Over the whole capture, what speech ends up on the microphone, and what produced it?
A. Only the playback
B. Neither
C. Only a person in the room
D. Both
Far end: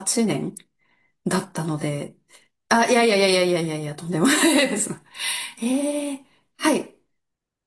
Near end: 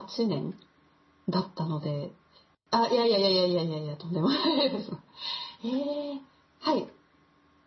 A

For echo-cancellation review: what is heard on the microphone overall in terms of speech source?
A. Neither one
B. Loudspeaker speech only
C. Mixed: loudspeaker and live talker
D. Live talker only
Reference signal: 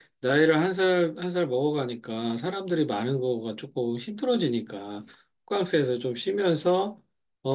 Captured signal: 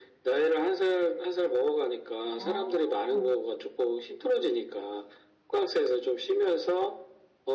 C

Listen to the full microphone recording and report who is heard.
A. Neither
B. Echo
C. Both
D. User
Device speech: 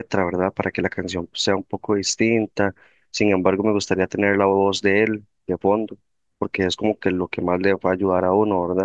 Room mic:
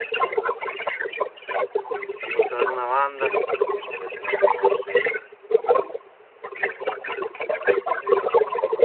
C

